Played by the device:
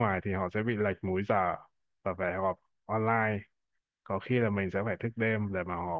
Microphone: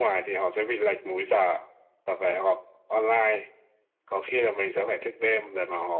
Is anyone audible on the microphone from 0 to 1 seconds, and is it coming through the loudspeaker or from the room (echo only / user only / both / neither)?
echo only